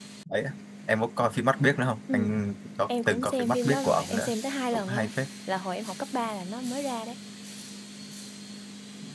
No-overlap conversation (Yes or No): No